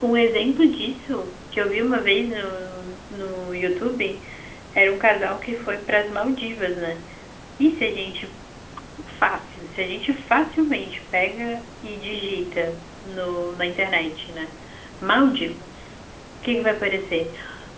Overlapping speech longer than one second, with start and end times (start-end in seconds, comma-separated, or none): none